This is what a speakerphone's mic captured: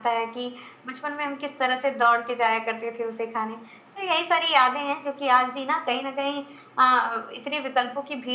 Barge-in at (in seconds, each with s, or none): none